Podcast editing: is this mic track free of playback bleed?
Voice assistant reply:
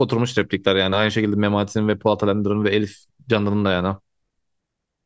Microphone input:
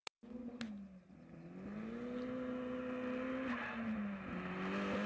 Yes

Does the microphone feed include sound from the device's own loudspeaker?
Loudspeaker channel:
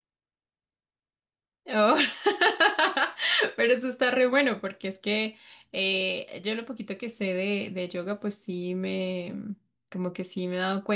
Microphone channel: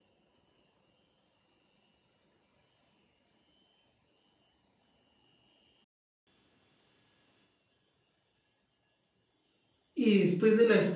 No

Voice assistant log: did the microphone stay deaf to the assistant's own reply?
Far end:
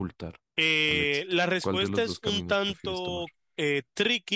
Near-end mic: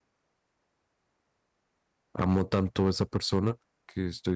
Yes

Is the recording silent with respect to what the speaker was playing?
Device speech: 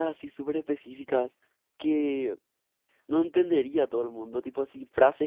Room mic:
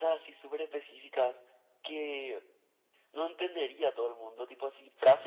No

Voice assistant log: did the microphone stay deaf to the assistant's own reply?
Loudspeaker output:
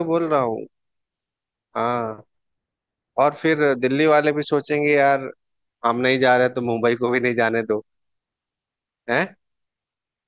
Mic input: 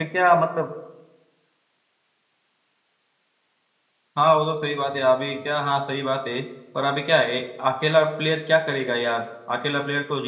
Yes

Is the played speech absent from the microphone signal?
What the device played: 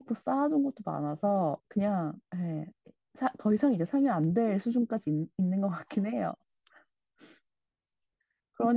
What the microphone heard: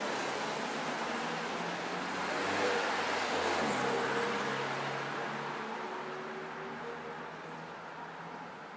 Yes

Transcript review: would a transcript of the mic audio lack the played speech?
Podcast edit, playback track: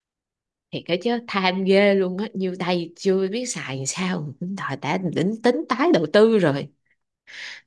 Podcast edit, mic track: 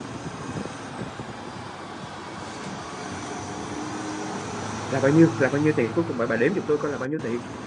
Yes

